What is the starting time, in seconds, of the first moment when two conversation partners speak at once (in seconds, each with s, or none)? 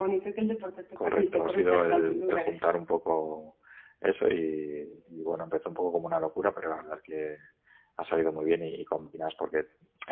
1.0 s